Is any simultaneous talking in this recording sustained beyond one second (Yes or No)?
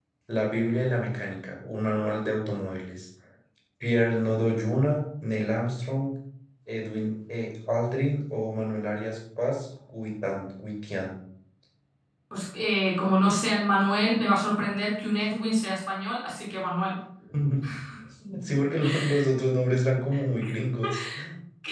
No